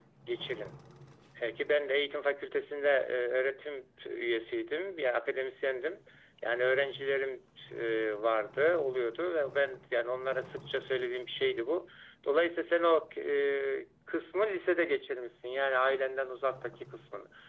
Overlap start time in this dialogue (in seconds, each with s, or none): none